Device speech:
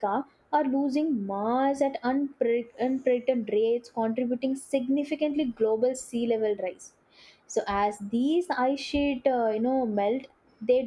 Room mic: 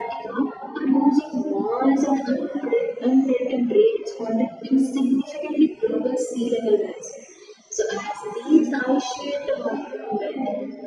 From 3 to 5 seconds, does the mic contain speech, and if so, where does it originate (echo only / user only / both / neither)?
echo only